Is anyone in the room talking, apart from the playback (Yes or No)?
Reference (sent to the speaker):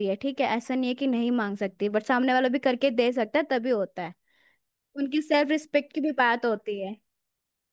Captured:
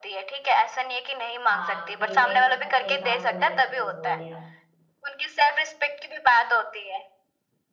Yes